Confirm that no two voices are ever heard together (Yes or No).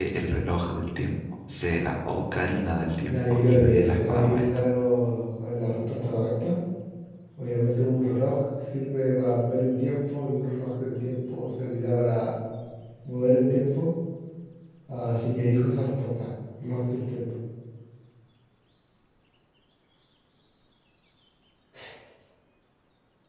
No